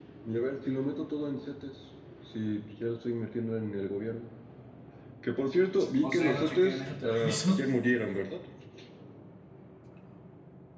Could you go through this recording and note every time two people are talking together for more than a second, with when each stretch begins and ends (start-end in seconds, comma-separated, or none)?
6.0-7.6